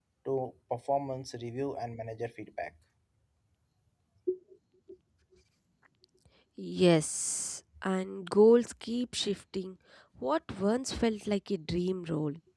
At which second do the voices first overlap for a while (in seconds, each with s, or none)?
none